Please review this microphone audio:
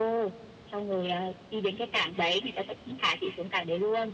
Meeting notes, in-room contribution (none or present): none